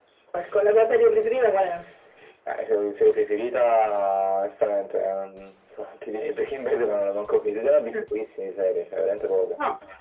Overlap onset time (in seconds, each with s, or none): none